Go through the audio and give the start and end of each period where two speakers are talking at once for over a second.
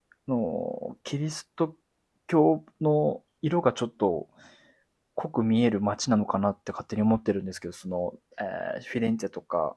none

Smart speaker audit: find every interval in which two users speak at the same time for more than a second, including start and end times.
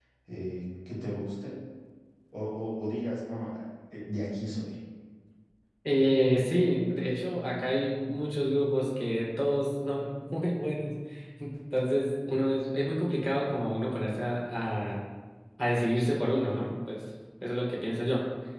none

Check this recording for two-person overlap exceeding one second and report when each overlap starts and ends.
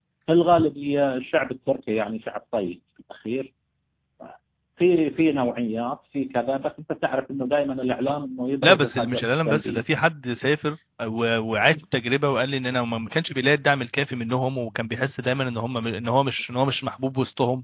8.6-9.8

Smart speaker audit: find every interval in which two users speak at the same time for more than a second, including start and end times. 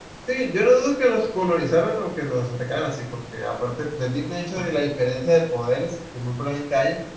none

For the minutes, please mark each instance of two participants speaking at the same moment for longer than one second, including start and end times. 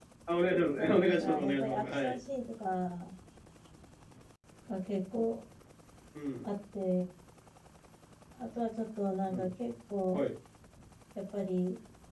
0.8-2.2

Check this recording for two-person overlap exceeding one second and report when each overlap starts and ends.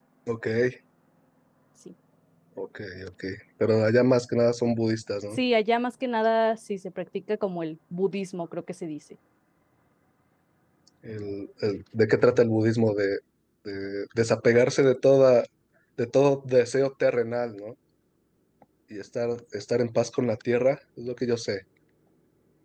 none

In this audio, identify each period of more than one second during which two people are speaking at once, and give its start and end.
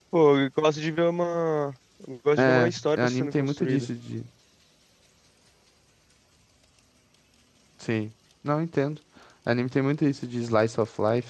2.4-3.9

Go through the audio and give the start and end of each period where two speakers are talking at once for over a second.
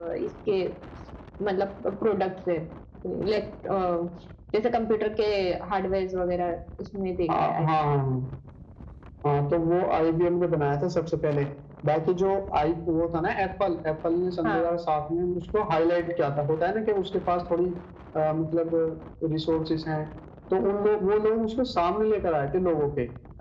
none

